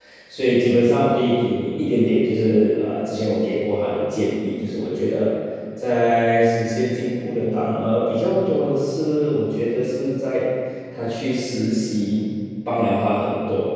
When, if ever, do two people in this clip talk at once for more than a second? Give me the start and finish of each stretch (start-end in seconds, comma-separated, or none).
none